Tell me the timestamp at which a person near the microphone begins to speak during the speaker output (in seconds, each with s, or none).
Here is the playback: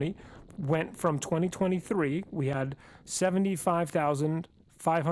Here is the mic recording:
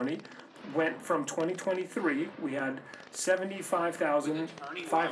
4.2 s